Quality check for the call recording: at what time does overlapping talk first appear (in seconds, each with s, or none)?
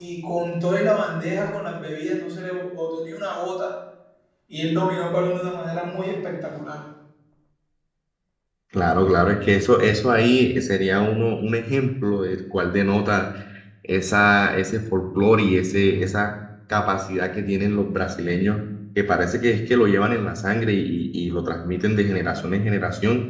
none